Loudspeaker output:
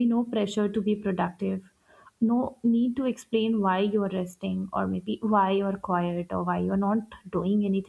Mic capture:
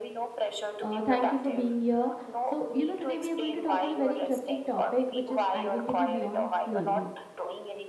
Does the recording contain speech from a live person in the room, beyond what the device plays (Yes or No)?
Yes